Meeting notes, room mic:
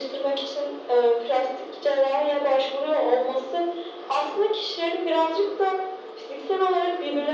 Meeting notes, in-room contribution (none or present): none